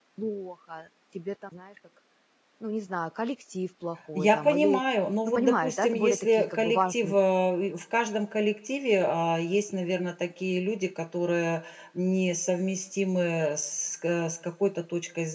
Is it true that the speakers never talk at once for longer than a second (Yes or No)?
No